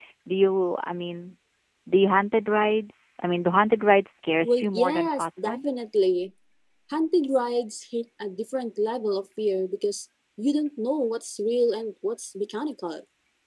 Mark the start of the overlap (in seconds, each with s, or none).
4.4 s